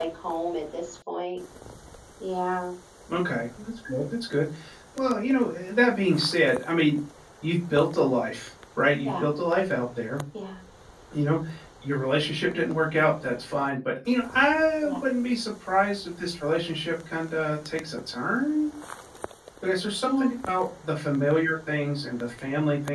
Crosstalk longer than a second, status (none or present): none